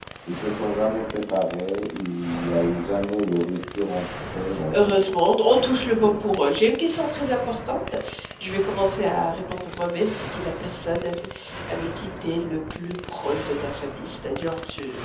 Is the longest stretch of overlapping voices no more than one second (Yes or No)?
Yes